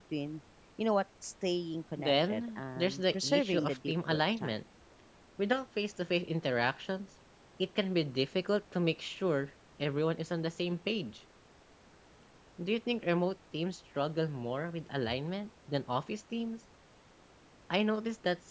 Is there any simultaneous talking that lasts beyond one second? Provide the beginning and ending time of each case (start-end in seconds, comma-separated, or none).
2.0-4.6